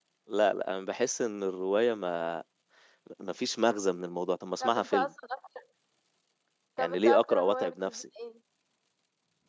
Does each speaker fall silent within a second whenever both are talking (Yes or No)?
No